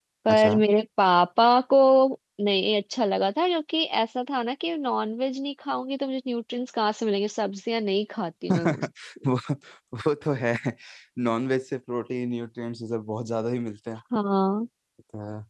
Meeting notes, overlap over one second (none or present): none